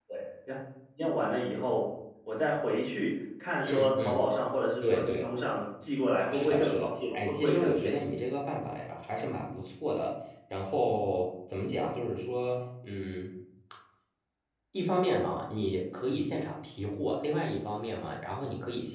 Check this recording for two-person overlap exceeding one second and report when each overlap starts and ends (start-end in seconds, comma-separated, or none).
6.3-7.9